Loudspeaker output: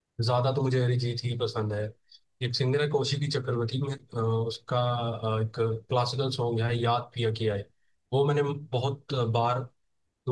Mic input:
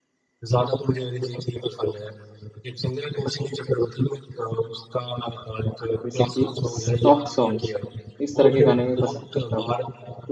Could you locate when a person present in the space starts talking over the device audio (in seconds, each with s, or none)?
6.0 s